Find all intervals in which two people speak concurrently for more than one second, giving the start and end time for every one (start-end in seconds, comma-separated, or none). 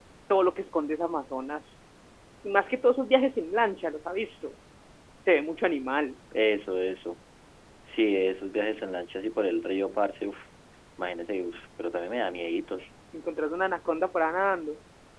none